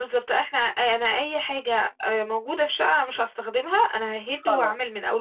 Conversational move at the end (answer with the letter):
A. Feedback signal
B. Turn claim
B